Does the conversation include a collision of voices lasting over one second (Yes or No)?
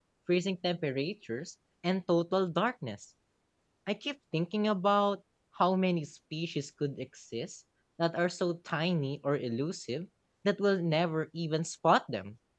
No